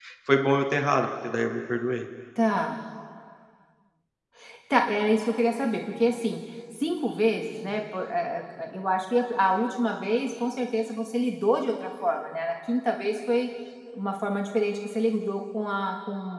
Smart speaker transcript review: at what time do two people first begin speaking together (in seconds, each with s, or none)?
none